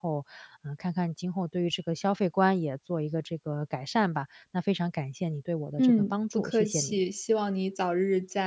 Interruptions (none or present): present